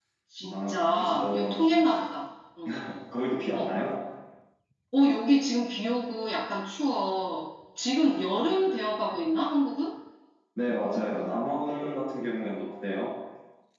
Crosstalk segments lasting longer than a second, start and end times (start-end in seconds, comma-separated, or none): 0.5-1.8